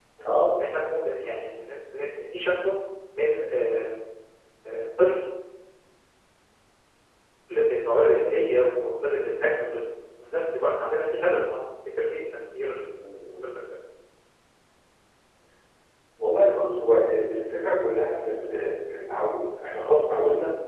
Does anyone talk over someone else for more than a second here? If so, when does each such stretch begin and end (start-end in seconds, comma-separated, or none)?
none